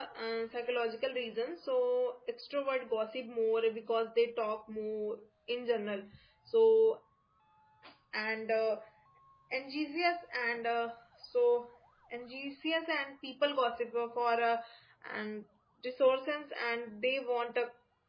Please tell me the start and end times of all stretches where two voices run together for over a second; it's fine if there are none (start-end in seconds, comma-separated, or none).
none